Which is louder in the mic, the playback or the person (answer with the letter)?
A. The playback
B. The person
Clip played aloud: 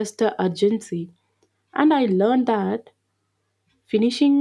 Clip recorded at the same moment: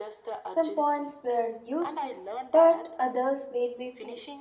B